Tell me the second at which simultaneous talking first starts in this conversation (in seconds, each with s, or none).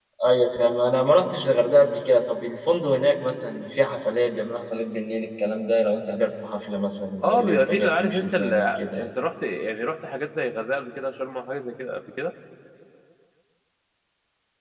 7.2 s